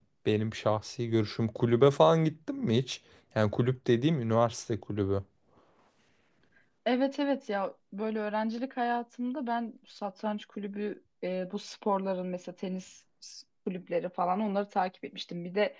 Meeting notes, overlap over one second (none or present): none